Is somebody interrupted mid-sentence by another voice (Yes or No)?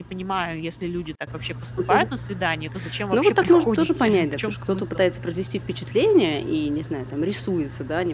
Yes